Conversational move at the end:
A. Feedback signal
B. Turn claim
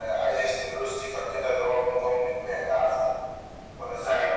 A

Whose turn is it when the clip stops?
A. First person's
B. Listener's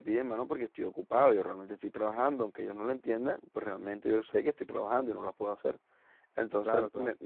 A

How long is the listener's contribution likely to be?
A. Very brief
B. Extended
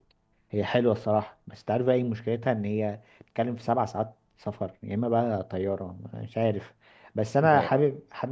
A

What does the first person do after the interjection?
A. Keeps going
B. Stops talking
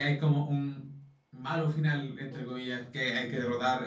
A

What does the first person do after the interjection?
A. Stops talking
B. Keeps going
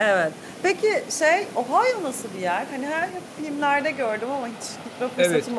A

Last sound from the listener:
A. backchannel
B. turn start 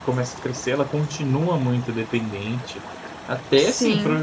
A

